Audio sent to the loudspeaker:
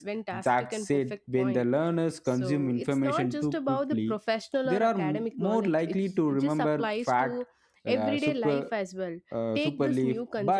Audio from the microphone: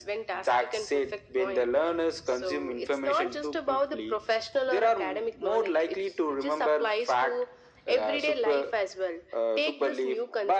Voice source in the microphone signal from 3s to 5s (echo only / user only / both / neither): echo only